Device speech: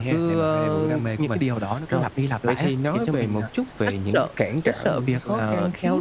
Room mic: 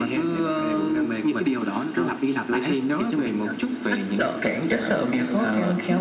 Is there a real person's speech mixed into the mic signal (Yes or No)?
No